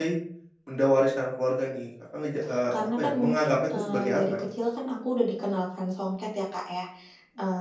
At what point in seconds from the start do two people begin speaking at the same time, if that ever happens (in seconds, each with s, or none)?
2.7 s